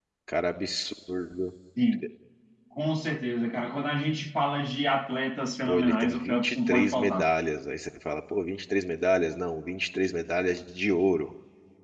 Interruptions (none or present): present